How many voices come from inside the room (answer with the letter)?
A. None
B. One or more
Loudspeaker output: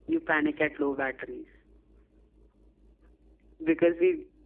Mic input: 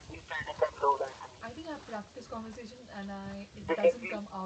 B